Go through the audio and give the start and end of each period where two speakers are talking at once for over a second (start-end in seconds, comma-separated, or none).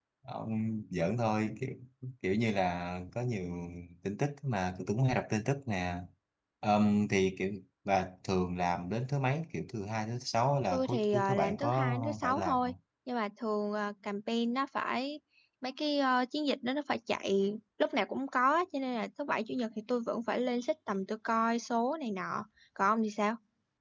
10.7-12.7